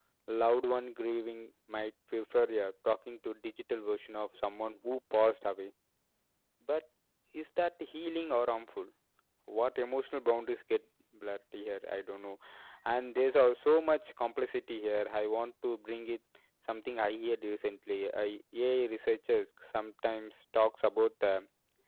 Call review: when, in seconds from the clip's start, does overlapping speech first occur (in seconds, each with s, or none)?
none